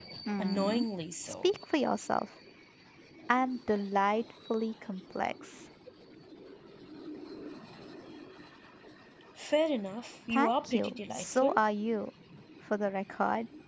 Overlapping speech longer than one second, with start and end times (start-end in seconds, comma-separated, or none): 10.3-11.6